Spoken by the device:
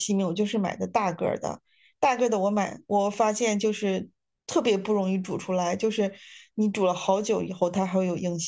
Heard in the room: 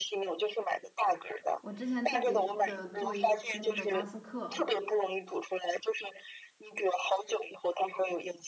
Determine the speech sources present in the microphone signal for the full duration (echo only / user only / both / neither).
both